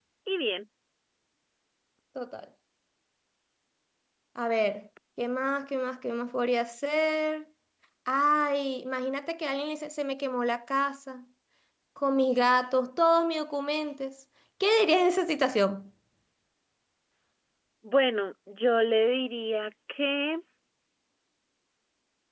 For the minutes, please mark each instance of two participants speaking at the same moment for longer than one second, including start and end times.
none

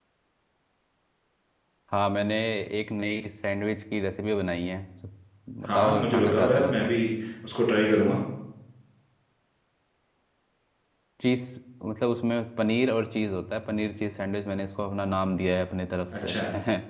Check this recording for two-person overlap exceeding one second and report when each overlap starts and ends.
5.7-6.9

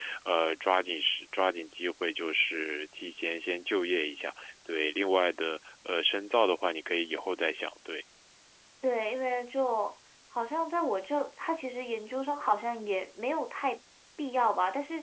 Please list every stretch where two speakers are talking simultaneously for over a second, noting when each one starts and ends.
none

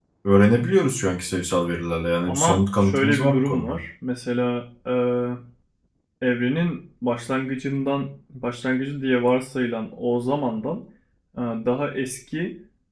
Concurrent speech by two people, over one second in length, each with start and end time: 2.3-3.8

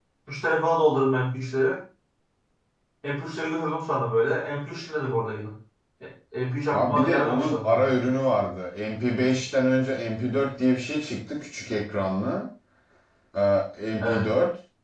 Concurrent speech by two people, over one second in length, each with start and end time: 6.7-7.9

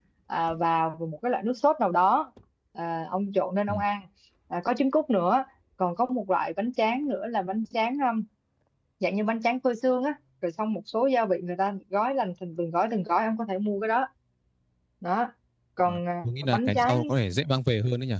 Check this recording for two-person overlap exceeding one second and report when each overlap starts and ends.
15.8-17.1

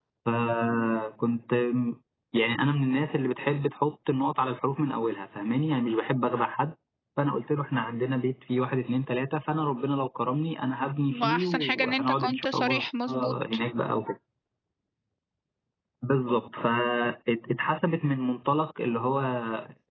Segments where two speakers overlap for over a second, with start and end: 11.2-12.8

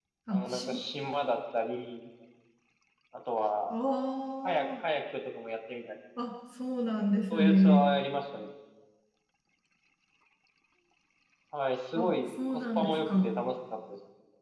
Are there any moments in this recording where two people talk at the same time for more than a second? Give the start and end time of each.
12.0-13.3

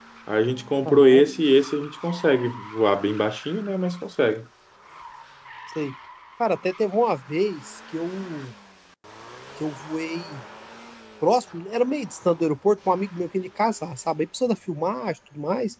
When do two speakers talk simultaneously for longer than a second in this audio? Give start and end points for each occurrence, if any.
none

